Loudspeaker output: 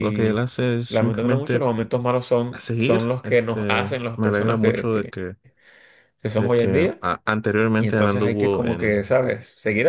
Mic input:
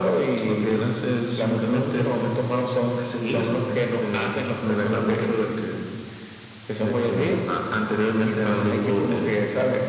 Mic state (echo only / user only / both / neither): echo only